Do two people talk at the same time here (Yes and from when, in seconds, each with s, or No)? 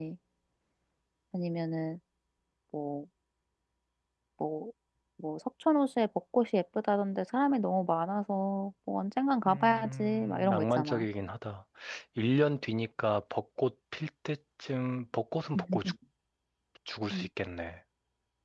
Yes, from 9.4 s